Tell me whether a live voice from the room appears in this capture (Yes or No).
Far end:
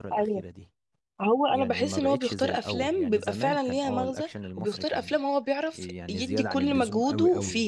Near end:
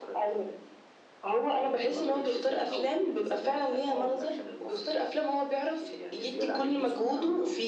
No